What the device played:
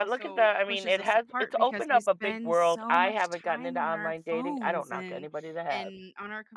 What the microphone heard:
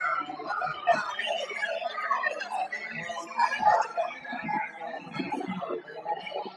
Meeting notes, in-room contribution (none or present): none